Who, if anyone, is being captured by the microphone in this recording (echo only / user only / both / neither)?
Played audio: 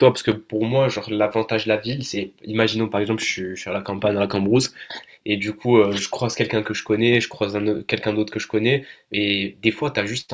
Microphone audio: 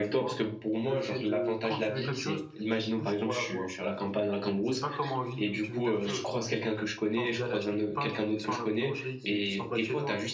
both